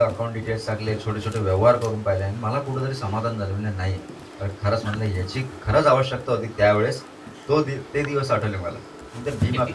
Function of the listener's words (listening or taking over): listening